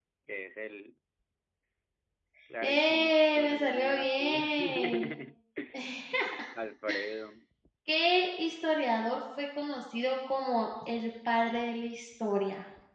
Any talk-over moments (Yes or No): Yes